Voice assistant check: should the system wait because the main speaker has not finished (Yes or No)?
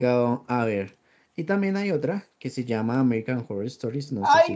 No